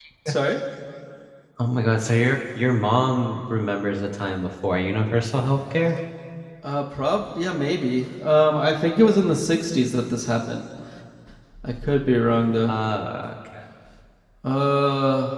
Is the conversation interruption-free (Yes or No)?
Yes